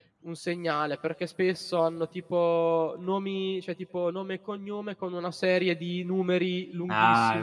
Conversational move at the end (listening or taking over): taking over